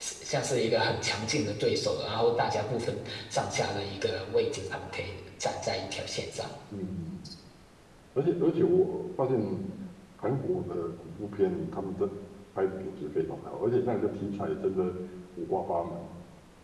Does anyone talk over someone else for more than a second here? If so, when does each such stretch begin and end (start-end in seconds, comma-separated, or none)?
none